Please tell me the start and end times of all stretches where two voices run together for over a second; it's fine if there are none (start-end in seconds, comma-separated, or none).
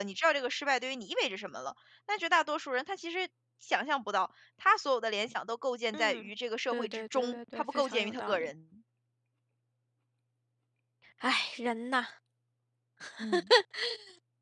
6.7-8.5